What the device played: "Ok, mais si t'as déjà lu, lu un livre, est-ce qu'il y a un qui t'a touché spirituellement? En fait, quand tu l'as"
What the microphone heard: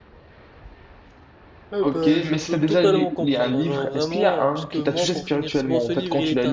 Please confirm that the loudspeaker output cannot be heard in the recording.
No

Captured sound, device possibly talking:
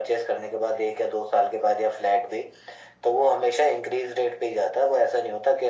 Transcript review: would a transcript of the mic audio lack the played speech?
No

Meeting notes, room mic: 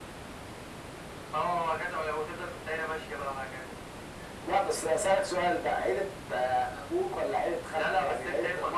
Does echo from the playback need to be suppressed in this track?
Yes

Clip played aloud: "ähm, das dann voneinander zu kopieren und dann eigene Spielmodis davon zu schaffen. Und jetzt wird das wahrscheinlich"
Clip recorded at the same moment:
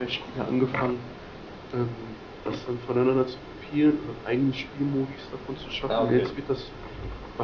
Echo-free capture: No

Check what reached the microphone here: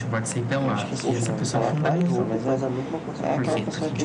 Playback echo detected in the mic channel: Yes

